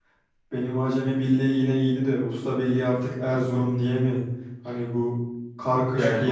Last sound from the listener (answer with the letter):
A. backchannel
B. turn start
A